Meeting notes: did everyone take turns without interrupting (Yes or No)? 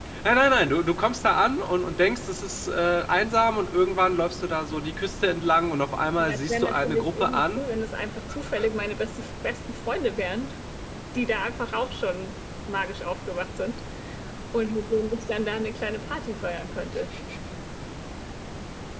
No